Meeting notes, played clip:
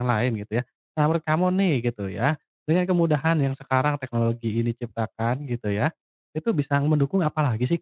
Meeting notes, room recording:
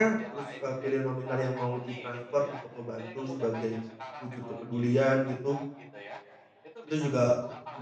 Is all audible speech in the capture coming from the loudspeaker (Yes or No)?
No